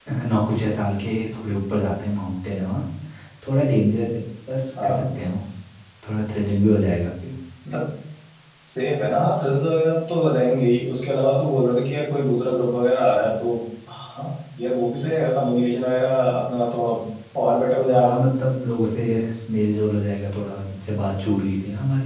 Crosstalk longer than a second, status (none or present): none